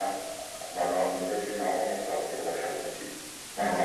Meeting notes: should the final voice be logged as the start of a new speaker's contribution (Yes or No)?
No